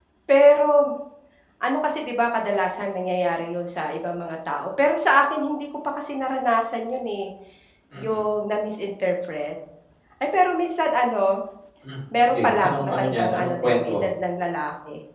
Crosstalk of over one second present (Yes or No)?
Yes